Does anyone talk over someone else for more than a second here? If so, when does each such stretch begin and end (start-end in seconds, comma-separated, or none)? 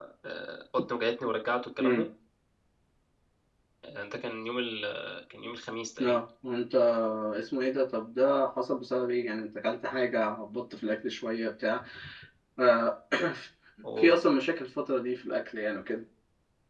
none